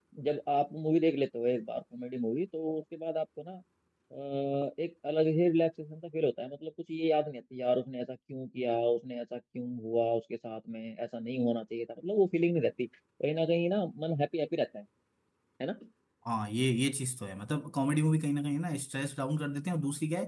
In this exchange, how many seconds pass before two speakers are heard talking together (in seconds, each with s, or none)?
none